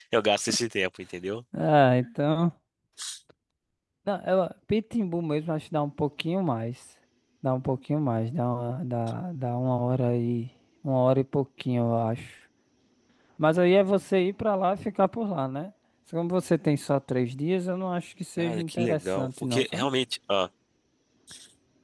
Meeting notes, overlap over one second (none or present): present